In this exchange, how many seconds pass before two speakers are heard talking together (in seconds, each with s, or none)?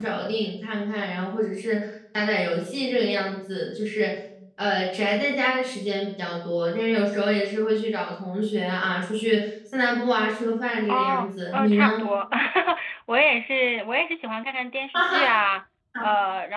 10.9 s